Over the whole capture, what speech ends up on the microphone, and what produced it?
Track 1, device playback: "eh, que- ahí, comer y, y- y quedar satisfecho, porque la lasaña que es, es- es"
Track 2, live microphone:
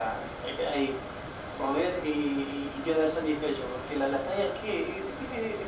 echo only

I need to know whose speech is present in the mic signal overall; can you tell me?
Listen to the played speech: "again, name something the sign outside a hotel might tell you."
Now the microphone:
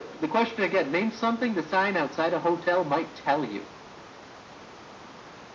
echo only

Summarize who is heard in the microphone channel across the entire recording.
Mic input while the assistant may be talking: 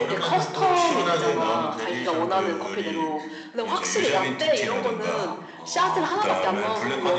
echo only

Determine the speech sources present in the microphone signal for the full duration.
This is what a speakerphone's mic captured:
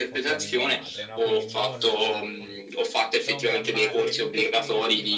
both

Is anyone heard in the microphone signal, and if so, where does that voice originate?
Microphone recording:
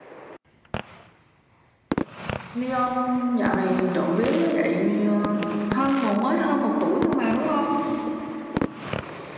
echo only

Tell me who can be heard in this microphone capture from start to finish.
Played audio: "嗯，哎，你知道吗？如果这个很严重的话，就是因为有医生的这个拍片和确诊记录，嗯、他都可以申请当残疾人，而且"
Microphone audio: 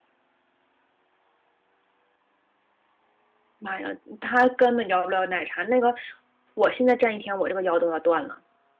user only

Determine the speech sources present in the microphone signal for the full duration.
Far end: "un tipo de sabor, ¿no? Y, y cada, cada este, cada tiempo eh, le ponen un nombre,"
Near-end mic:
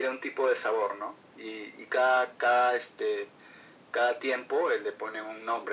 echo only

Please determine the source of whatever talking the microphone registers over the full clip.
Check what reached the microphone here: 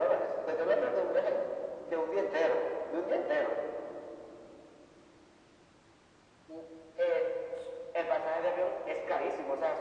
echo only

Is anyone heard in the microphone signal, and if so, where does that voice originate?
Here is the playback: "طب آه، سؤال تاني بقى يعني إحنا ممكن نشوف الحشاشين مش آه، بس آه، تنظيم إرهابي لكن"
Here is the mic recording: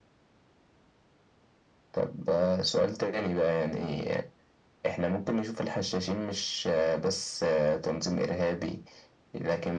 echo only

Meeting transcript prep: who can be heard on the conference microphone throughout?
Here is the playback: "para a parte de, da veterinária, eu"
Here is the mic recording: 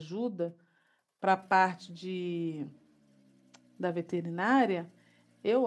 echo only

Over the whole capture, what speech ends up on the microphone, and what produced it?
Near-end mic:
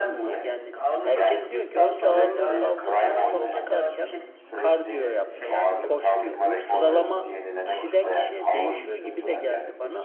both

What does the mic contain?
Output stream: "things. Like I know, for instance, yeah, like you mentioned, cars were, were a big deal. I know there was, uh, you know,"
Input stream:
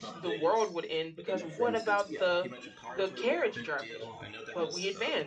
both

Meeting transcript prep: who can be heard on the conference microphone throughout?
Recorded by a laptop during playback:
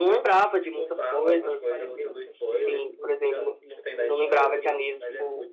both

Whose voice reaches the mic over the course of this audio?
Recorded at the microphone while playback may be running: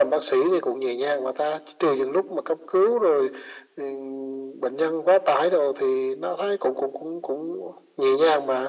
echo only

